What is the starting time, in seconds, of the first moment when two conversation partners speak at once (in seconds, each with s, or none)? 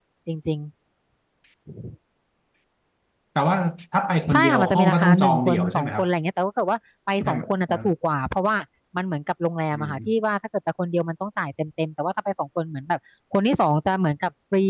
4.3 s